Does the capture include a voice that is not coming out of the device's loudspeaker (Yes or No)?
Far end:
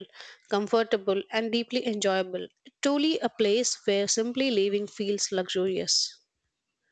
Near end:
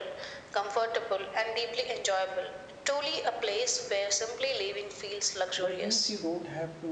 Yes